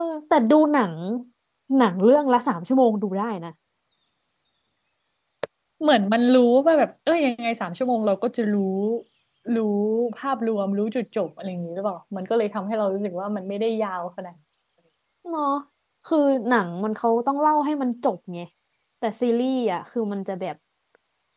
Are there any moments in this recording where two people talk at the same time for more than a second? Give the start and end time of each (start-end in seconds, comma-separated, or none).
none